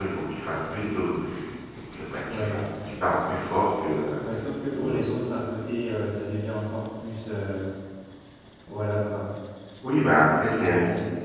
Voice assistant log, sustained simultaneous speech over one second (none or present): present